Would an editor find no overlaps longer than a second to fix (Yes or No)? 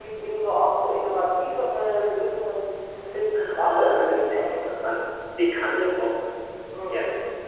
No